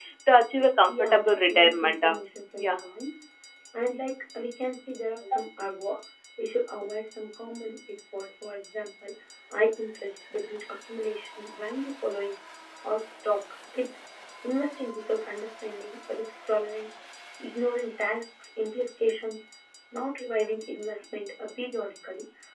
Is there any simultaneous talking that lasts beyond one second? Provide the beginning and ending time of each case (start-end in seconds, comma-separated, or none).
0.9-2.1